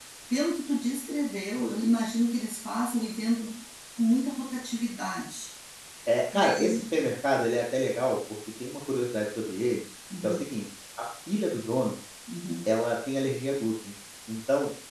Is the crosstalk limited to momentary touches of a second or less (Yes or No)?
Yes